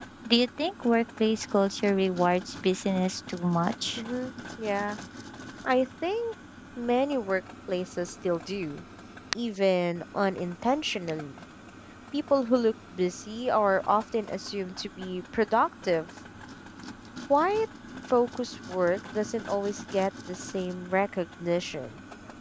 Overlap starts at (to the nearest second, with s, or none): none